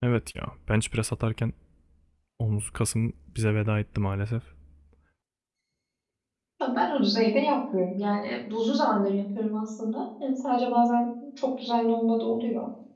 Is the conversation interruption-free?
Yes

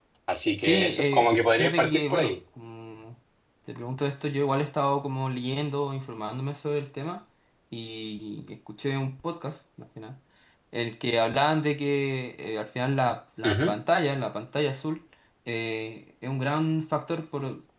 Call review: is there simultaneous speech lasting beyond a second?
Yes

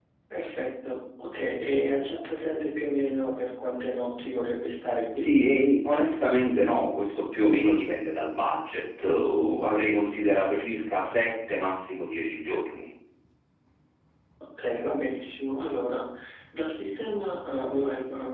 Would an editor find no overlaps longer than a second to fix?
Yes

